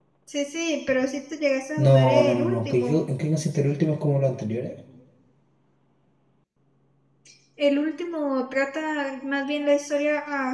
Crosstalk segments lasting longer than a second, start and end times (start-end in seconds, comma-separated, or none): 1.8-3.0